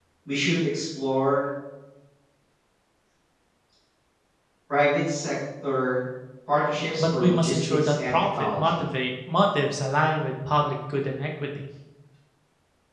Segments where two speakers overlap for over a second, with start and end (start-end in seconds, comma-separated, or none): 7.0-8.8